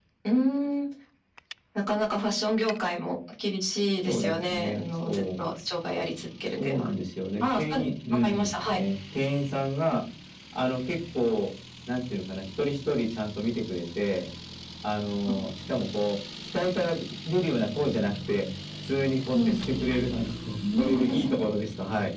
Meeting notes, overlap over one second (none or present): present